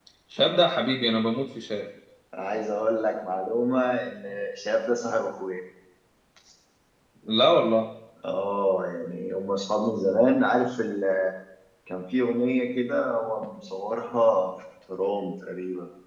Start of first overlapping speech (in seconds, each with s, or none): none